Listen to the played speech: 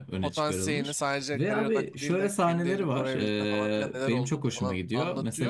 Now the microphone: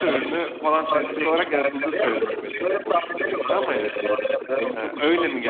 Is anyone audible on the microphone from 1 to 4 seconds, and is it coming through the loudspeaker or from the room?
both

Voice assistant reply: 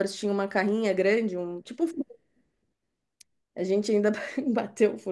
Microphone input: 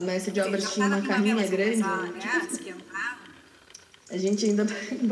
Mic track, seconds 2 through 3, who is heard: both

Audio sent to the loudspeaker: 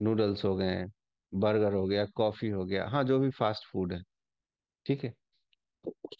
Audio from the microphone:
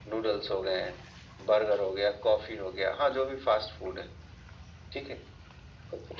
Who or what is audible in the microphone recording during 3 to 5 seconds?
echo only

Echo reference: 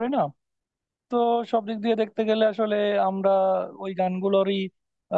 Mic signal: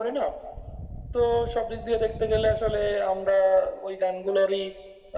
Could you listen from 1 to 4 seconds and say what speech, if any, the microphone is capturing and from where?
echo only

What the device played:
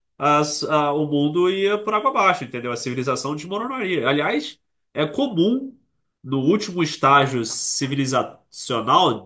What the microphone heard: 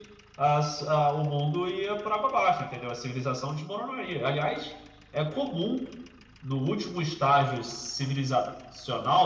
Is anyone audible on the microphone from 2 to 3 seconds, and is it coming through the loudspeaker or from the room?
echo only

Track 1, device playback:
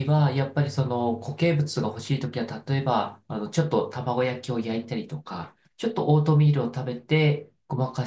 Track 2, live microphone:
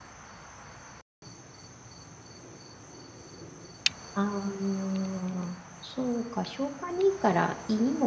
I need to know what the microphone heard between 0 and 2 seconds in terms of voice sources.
neither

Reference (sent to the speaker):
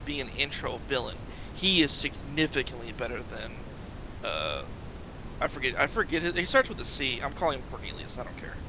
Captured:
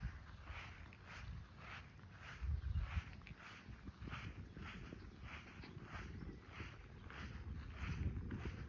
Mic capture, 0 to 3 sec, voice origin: neither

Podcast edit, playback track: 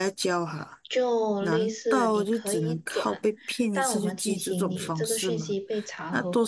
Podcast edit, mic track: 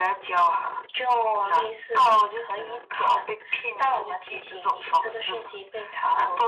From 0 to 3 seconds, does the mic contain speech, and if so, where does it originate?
echo only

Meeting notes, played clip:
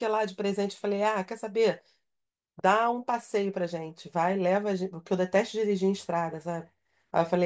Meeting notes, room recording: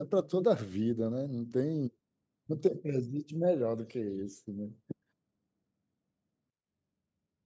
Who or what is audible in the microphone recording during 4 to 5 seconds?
user only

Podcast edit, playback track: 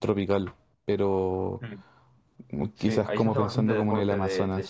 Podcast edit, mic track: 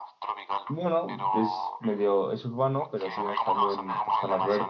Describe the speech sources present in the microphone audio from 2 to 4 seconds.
both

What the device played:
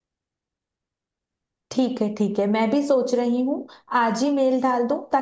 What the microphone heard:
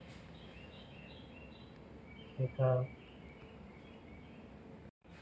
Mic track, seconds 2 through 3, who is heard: user only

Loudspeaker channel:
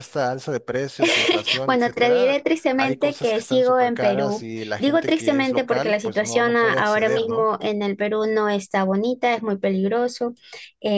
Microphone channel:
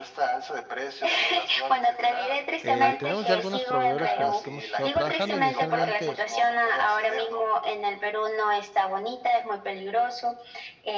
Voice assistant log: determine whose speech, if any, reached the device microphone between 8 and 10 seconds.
echo only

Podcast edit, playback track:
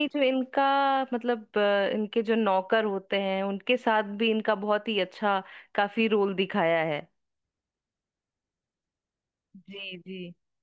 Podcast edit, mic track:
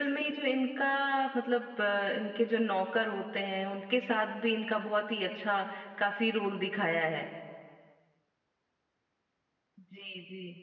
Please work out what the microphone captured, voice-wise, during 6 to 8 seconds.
echo only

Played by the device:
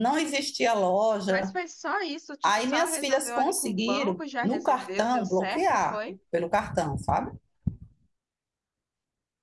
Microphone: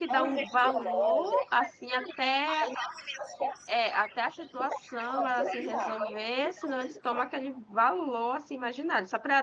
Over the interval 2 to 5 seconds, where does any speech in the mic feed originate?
both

